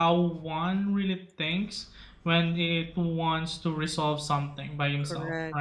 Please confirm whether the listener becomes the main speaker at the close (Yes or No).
Yes